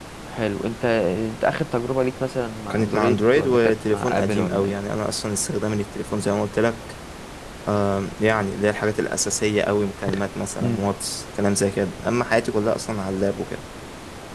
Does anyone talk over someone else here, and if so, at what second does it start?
2.7 s

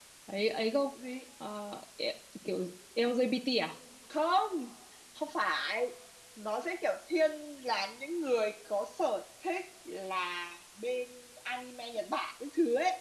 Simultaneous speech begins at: none

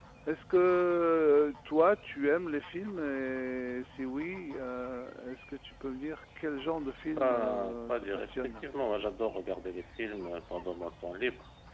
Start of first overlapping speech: 7.2 s

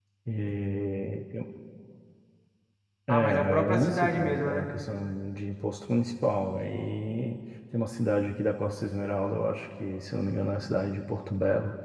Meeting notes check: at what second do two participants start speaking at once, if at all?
3.1 s

